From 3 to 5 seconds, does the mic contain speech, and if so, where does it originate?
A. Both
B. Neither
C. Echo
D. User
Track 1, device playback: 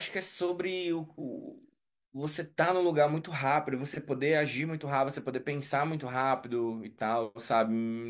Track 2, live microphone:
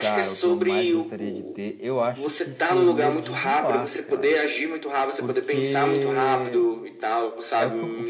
A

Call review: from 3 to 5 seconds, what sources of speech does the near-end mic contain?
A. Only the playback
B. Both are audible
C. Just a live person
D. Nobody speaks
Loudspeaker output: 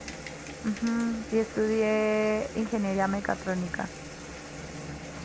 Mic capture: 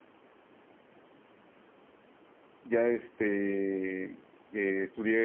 C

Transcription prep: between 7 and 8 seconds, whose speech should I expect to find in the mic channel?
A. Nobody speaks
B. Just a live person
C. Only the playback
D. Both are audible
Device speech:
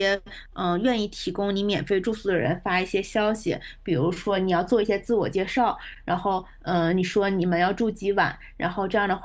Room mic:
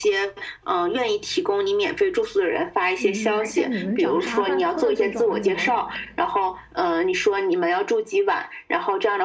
C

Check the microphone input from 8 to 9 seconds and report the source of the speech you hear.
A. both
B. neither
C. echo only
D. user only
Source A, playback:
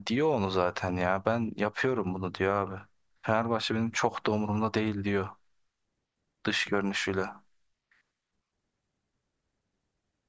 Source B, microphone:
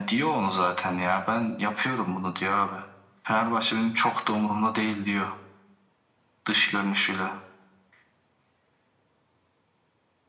B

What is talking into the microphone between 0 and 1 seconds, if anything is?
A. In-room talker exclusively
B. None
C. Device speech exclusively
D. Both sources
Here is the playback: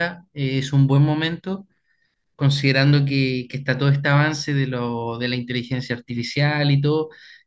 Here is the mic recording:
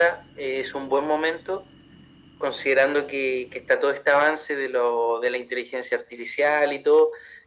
C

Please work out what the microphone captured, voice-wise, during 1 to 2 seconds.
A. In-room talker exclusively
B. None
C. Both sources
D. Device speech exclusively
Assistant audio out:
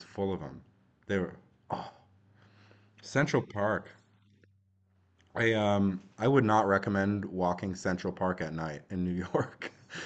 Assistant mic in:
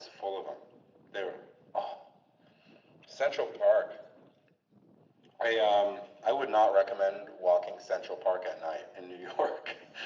D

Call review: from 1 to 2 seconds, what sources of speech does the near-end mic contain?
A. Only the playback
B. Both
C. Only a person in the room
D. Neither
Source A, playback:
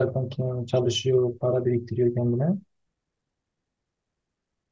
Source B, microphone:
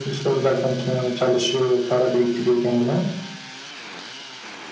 A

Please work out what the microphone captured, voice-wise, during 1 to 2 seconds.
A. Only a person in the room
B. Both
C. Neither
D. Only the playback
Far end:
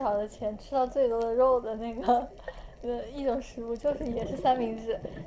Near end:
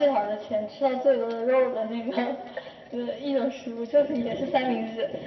D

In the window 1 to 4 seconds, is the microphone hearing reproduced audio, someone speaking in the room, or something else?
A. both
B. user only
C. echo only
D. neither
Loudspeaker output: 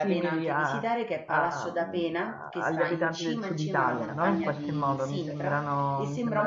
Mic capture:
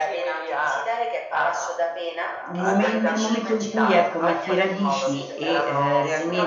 A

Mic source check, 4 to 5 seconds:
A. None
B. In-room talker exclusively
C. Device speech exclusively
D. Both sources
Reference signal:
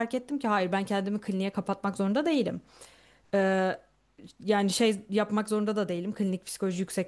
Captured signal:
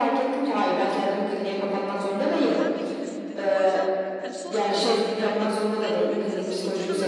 D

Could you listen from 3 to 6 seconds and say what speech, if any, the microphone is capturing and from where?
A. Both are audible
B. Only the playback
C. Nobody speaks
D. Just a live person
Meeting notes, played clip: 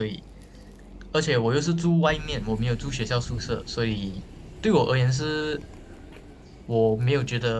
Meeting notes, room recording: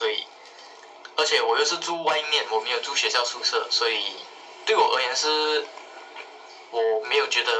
B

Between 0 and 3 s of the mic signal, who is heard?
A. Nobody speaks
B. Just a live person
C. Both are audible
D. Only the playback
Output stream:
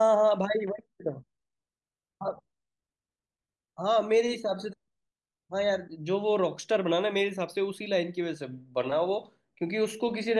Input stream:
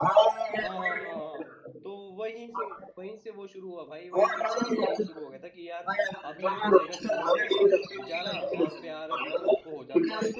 C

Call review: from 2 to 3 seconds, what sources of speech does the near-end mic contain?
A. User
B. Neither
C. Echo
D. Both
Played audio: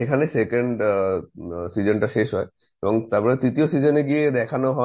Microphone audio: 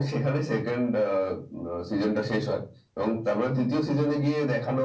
C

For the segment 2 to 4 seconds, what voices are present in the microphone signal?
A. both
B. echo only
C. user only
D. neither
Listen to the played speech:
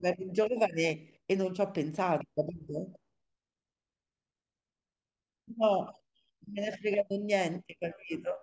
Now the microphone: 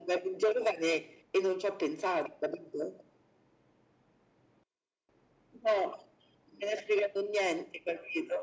B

